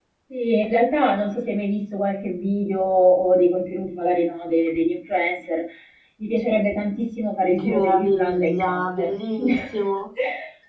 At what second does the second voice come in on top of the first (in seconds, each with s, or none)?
7.6 s